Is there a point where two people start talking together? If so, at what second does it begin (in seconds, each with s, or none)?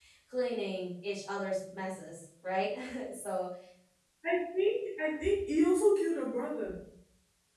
none